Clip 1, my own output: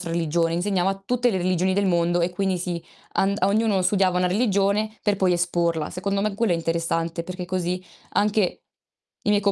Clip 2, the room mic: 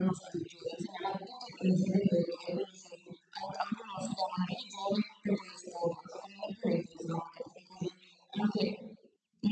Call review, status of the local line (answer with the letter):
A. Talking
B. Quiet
B